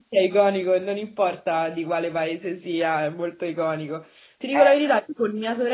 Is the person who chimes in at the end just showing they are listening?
Yes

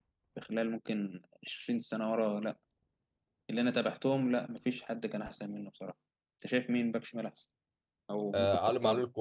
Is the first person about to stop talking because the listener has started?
Yes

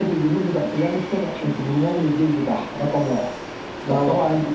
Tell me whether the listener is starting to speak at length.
No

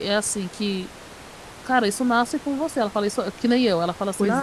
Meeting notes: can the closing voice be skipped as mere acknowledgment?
Yes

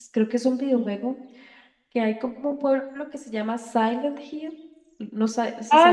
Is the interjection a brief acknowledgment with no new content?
No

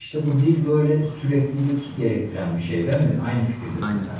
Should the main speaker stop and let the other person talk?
Yes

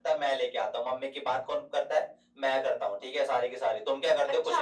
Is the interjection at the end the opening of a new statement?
Yes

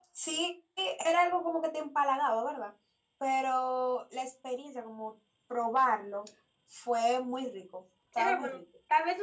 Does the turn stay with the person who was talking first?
No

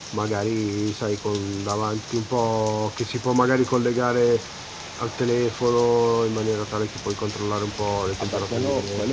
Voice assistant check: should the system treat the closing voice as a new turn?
Yes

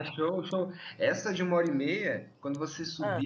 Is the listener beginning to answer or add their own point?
No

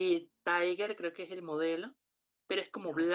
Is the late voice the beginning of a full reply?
No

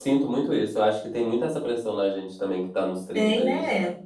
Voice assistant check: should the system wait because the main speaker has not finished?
Yes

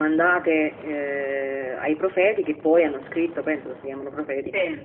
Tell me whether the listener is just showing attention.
Yes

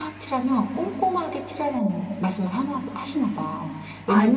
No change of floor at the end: Yes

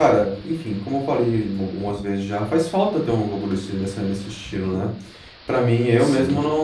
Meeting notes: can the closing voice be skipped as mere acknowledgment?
Yes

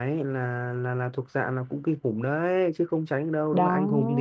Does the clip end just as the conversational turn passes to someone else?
No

